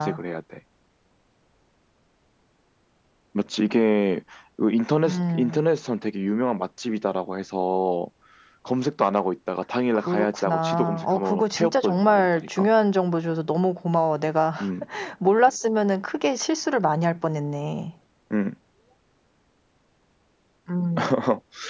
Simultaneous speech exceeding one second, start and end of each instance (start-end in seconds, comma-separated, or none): 9.9-12.7